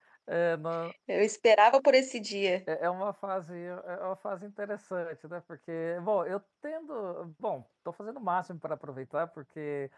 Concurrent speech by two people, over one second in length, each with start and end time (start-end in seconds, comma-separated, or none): none